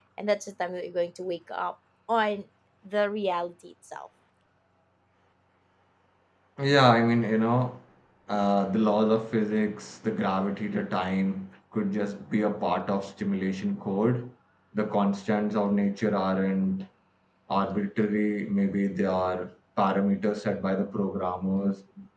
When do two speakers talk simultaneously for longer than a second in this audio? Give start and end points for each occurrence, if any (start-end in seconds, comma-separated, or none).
none